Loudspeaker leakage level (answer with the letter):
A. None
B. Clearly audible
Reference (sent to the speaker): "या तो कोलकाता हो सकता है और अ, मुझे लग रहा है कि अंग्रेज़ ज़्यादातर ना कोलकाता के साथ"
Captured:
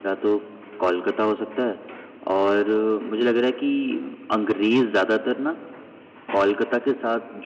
B